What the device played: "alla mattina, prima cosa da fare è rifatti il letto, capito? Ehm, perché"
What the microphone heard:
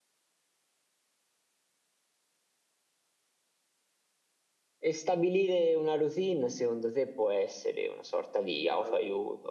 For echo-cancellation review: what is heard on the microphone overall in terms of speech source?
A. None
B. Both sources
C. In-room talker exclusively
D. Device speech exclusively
C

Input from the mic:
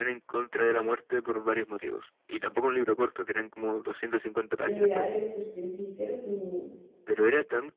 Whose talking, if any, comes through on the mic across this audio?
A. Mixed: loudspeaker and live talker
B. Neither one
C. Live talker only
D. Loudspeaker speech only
A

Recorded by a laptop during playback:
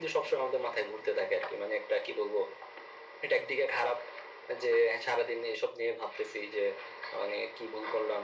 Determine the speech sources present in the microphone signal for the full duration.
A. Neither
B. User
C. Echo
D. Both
C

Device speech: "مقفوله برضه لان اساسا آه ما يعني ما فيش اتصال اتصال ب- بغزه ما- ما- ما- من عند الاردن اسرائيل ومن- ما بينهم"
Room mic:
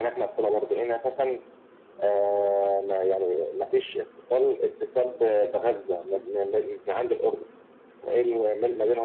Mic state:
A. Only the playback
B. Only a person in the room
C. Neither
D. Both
A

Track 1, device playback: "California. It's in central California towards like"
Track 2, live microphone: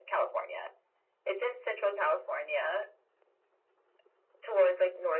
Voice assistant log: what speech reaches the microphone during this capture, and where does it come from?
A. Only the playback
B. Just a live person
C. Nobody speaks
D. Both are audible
A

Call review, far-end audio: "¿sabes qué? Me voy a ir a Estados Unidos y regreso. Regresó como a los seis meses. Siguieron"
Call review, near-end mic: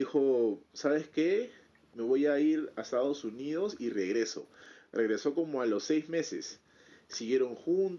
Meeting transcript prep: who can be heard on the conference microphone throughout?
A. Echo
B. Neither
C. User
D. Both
A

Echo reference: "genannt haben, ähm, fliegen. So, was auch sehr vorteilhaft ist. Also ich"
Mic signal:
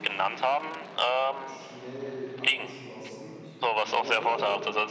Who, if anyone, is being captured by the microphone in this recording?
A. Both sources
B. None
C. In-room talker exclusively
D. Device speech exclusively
A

